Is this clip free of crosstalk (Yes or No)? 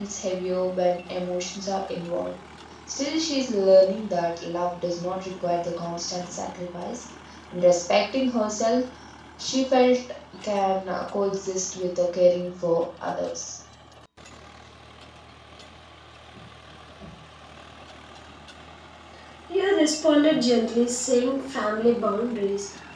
Yes